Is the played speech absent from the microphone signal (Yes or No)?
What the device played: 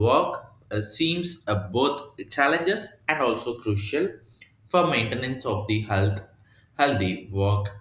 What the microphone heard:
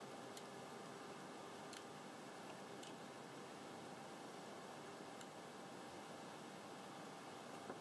Yes